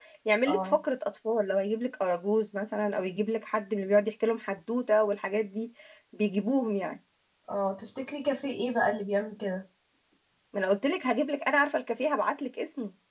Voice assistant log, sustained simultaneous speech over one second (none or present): none